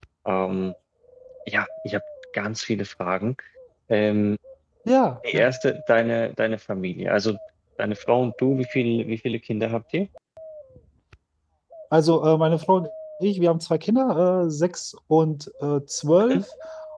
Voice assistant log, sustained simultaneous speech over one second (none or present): none